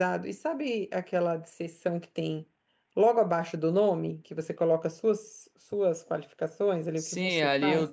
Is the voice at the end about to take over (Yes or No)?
Yes